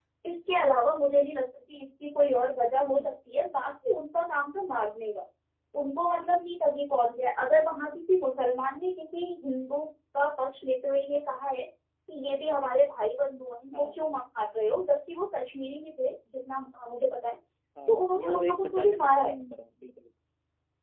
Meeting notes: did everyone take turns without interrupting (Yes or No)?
No